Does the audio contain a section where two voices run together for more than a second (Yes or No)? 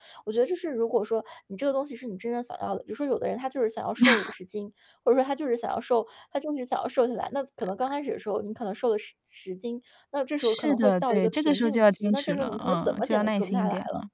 Yes